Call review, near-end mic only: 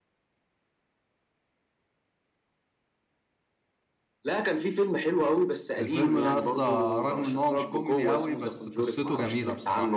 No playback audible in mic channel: No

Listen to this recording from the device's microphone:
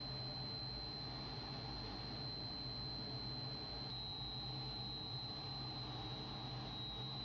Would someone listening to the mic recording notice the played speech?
No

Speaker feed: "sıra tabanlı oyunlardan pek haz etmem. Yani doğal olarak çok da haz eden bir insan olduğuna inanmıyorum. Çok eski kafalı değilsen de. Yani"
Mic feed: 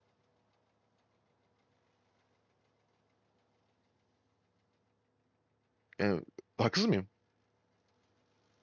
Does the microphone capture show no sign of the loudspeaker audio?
Yes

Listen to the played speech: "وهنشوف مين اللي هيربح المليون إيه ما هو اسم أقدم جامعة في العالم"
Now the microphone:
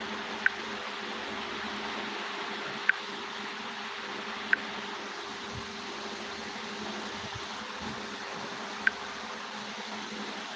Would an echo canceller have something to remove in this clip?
No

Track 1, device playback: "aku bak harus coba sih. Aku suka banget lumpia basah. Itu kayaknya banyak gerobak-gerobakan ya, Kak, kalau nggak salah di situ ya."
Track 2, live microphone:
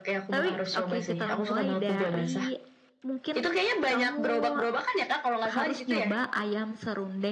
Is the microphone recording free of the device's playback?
No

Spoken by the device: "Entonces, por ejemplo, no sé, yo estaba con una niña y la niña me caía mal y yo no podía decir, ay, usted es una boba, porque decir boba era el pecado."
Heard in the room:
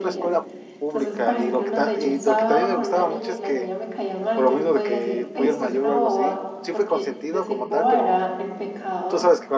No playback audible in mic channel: No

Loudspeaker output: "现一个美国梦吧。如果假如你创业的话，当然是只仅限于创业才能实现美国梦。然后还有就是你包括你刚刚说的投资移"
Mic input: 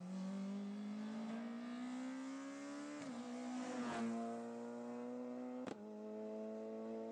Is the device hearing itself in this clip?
No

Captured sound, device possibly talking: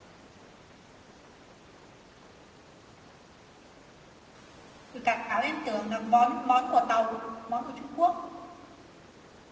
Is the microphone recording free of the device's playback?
Yes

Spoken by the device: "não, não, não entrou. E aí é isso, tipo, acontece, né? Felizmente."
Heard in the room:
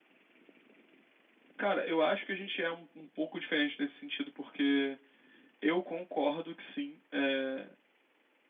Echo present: No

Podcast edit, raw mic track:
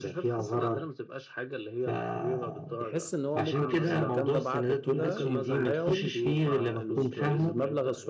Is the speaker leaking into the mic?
Yes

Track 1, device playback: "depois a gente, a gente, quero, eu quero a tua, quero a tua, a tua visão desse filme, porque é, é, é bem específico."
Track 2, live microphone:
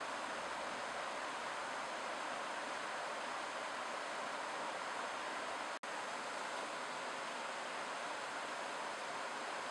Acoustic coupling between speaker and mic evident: No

